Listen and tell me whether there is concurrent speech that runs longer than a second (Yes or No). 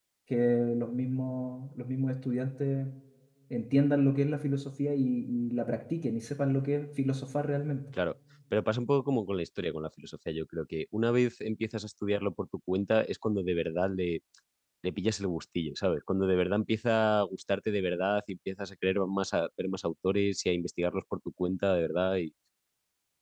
No